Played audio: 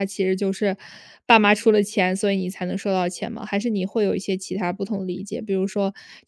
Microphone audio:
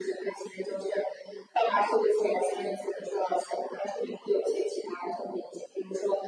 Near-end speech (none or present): none